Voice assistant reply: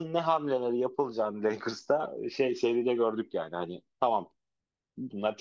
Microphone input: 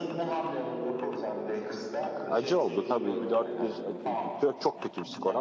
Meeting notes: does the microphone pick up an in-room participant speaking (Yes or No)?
Yes